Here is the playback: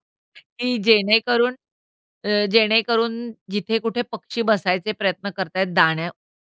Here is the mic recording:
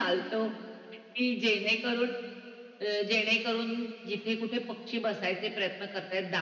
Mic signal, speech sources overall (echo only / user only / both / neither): echo only